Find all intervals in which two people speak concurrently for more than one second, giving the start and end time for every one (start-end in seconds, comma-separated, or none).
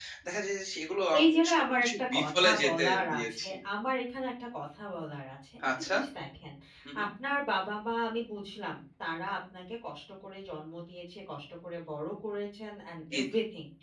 1.2-3.5